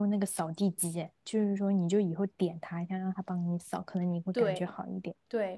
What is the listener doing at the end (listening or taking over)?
taking over